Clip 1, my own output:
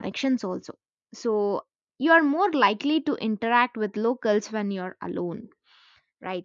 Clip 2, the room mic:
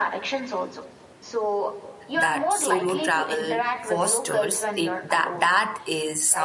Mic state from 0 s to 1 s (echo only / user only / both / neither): echo only